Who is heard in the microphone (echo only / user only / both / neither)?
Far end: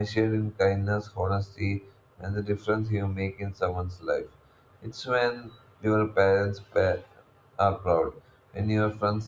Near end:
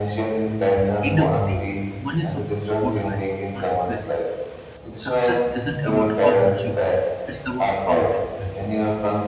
both